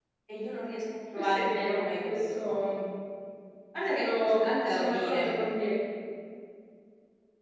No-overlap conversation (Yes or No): No